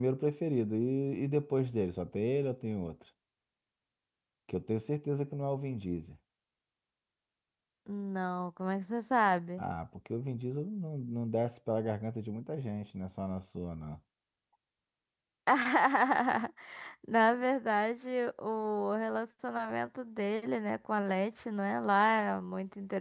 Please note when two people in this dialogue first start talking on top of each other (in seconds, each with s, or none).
none